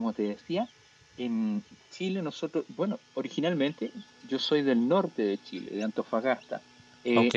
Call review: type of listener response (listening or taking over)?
listening